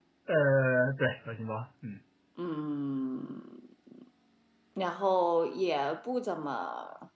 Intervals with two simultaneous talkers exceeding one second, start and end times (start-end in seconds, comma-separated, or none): none